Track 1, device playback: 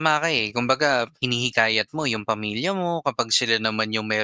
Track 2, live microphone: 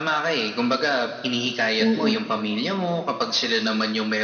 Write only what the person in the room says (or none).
Mm.